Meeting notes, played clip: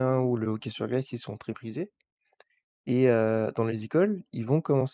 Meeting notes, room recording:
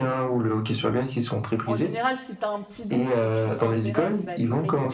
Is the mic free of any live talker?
No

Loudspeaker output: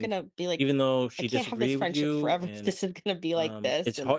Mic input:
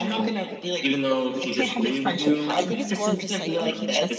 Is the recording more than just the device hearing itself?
Yes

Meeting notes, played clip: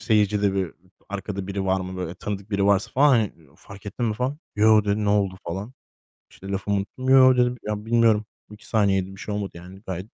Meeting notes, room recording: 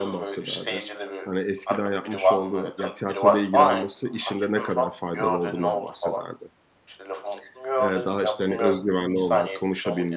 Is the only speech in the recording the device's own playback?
No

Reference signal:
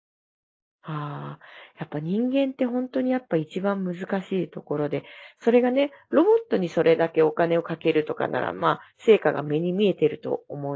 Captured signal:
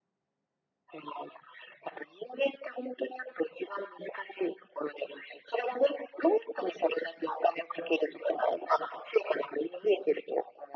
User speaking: No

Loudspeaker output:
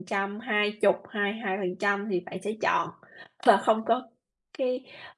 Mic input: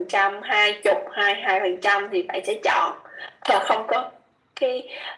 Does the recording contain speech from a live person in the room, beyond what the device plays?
No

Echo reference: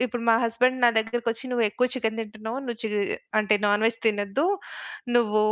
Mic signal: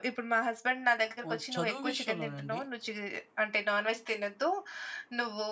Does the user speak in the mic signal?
Yes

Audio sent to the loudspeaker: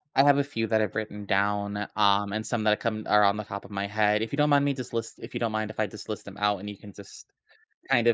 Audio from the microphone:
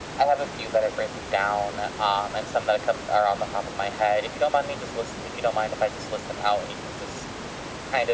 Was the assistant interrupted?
No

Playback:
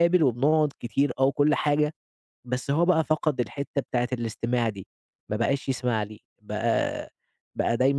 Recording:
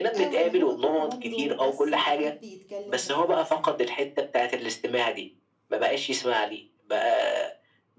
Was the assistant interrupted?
Yes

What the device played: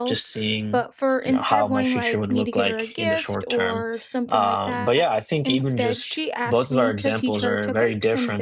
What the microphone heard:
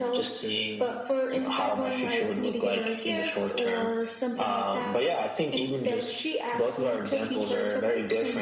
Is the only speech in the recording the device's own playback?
Yes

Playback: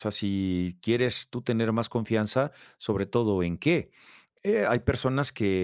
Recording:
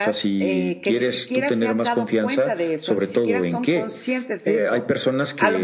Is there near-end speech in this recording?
Yes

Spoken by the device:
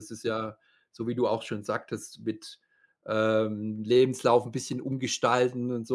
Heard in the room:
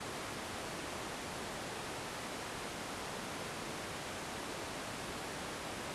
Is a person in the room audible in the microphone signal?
No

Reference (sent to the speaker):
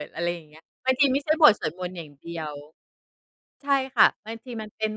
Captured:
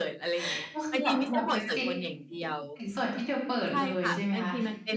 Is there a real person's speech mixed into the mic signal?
Yes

